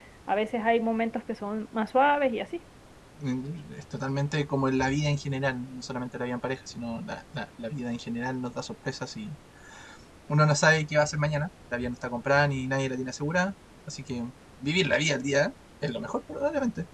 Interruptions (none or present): none